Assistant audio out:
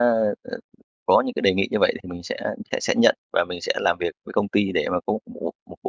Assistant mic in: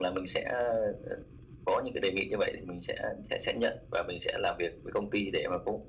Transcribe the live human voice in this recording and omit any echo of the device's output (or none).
none